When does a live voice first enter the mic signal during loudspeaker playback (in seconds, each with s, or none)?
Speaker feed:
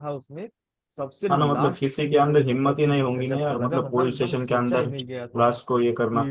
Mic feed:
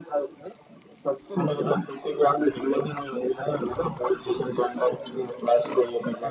none